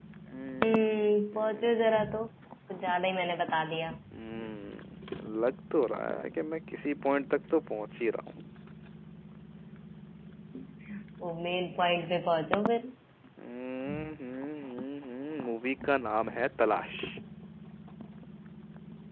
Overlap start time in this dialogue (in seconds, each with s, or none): 0.6 s